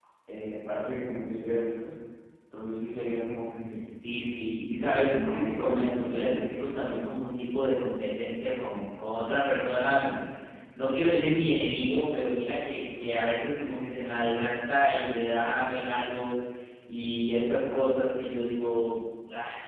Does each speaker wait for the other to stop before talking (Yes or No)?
No